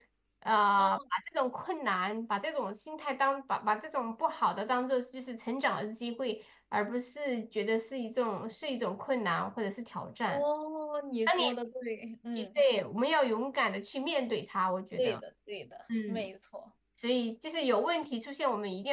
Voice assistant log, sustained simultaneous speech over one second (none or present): none